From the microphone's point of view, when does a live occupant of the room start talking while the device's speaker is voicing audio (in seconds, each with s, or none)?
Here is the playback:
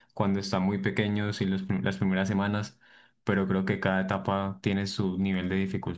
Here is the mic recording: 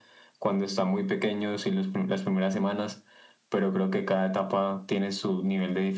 none